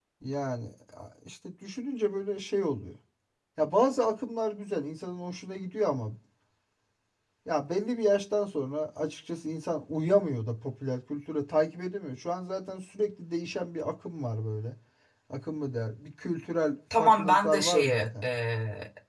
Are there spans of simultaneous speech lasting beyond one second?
Yes, from 16.9 s

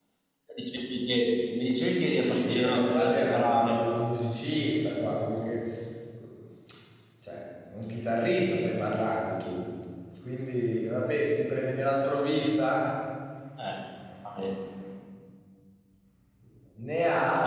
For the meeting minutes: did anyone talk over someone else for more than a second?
Yes, from 2.4 s

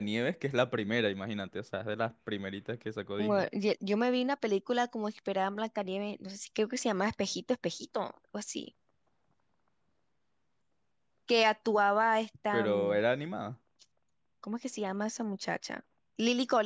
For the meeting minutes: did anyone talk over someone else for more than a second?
No

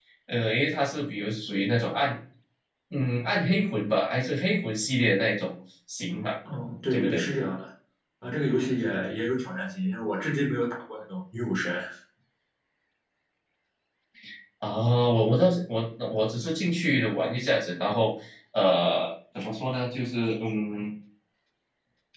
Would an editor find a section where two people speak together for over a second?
No

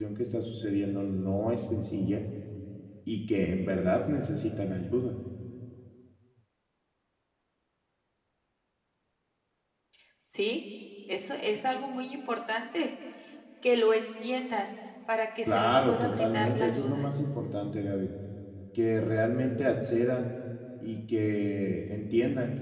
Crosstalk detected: Yes, from 15.5 s

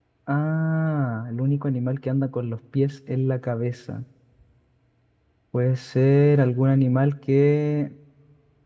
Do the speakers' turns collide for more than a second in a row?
No

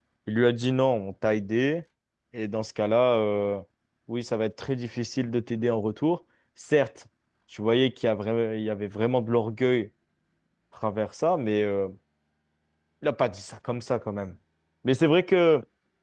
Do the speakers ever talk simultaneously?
No

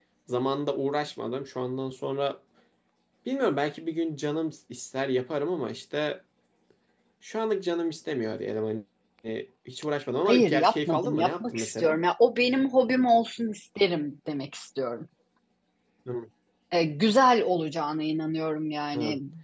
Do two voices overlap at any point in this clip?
Yes, from 10.2 s

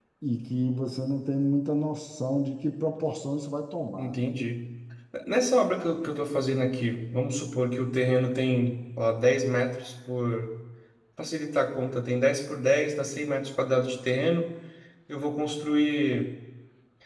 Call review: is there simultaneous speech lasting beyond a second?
No

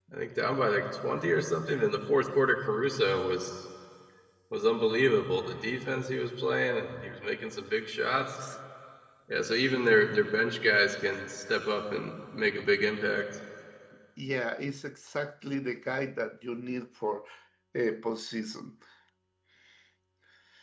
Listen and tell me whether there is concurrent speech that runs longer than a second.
No

